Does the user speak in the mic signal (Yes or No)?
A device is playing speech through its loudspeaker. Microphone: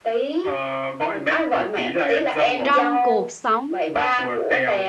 Yes